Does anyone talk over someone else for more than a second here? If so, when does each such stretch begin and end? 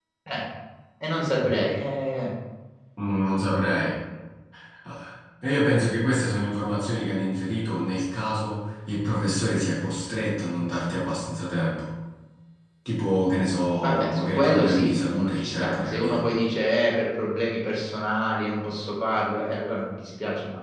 13.8-16.2

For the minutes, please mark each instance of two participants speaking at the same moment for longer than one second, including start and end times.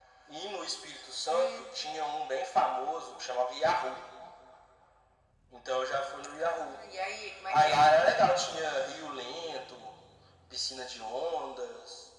none

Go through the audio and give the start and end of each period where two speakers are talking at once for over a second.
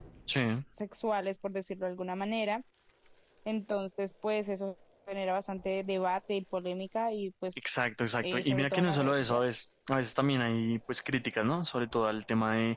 8.2-9.4

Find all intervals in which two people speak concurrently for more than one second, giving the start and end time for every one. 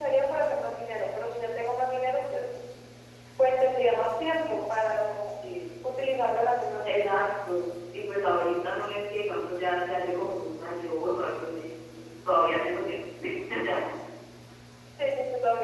none

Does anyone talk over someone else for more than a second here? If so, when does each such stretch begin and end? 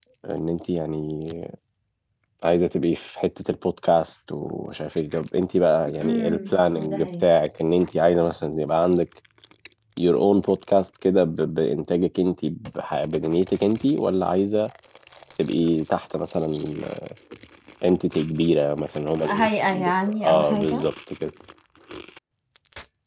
19.2-20.9

